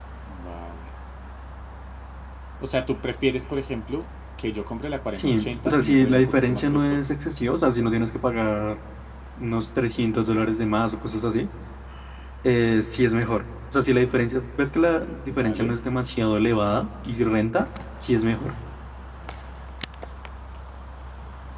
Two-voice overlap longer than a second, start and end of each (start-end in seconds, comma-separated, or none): 5.1-7.0